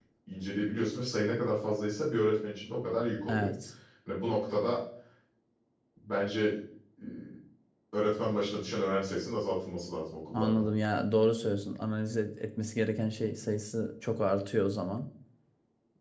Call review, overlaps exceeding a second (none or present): none